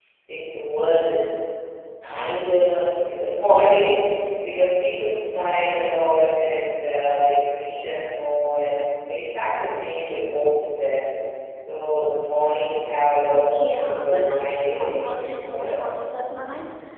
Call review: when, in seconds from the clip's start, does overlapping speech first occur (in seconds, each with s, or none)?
13.5 s